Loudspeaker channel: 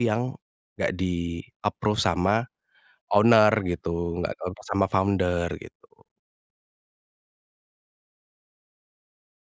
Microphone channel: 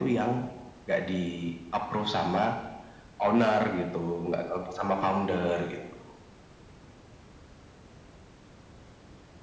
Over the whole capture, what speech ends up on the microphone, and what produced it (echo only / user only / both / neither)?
echo only